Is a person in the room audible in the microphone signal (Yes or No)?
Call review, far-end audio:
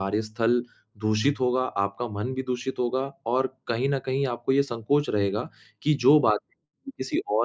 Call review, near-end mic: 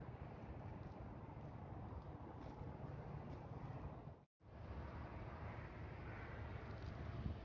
No